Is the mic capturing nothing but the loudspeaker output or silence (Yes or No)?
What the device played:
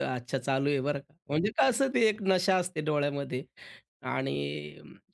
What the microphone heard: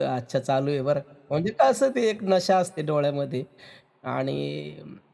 Yes